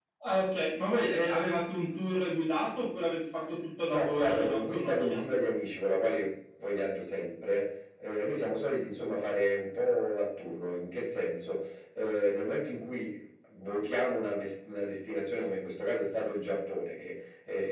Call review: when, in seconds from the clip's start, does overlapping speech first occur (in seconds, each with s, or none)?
3.9 s